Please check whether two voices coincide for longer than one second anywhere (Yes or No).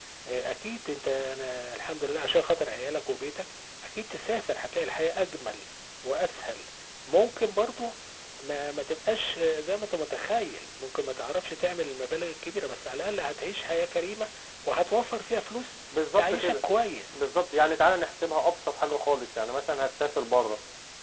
No